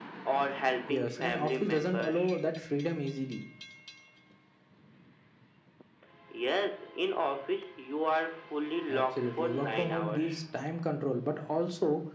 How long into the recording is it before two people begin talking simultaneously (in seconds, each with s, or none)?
0.9 s